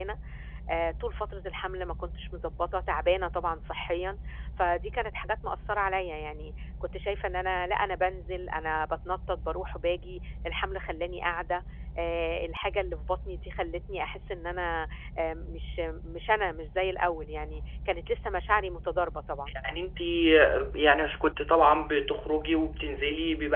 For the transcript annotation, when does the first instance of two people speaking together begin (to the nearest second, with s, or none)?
none